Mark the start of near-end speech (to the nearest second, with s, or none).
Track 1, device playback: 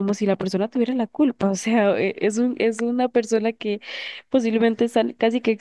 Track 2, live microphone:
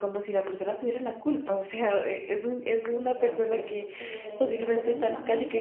3 s